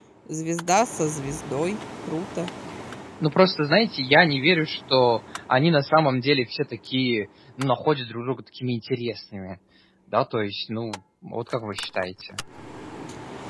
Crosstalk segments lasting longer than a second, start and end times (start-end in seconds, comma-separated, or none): none